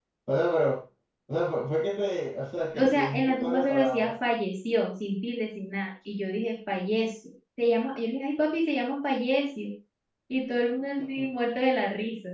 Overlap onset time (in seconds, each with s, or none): 2.7 s